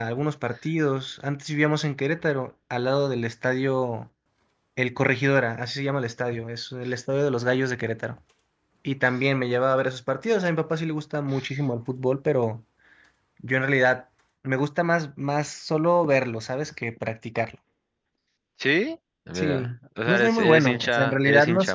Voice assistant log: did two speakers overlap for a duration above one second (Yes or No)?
Yes